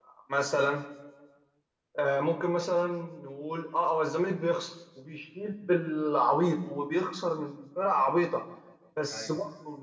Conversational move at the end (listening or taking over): listening